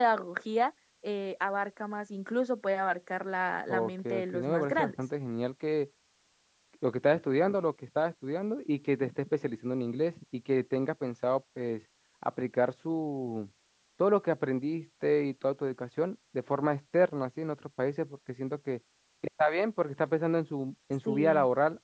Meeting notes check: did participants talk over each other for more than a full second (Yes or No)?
Yes